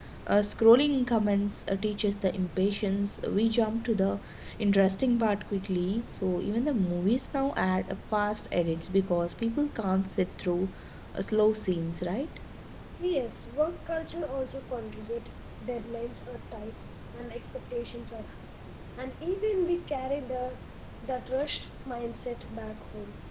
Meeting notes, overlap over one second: none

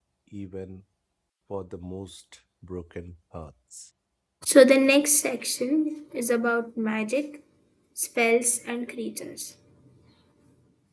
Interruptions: none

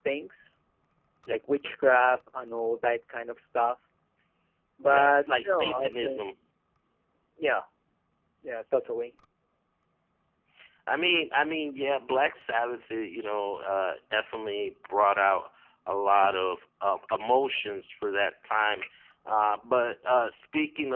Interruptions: present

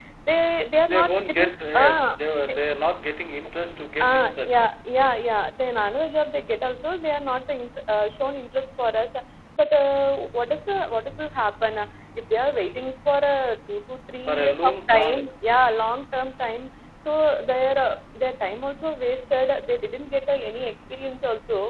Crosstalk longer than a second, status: present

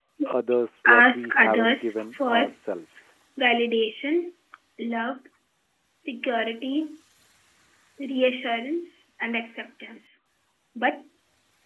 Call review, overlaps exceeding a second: present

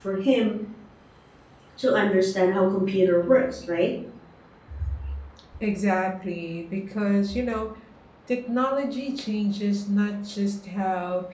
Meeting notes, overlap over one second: none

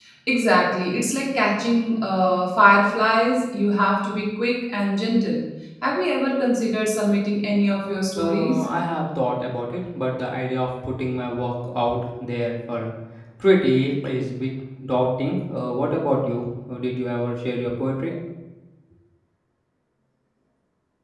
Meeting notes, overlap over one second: none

